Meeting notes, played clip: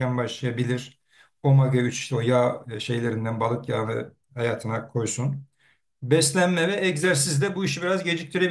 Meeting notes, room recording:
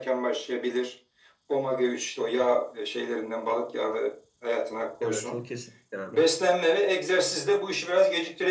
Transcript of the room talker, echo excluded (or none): Evet o kesinlikle abi.